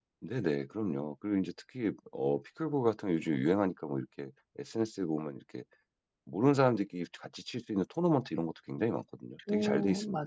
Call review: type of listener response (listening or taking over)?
taking over